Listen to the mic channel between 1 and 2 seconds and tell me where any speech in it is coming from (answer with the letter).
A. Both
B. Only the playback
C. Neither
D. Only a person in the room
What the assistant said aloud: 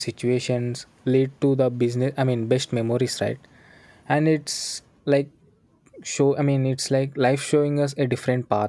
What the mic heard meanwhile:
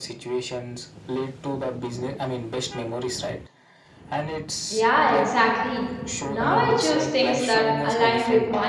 B